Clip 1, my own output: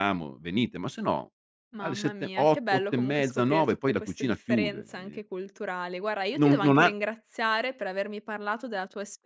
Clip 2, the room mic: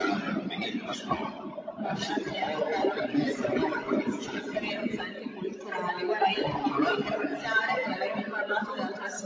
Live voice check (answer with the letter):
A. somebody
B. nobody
B